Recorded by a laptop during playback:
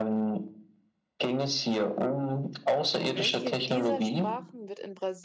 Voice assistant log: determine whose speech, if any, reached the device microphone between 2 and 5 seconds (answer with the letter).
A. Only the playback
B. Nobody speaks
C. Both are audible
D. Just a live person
C